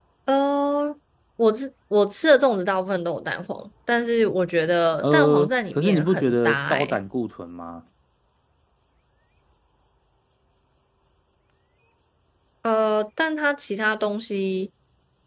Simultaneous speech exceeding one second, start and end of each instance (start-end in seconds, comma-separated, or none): 5.0-7.0